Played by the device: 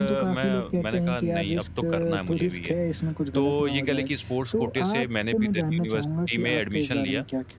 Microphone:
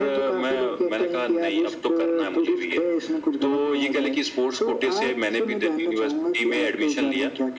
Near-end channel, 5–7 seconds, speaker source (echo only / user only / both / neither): echo only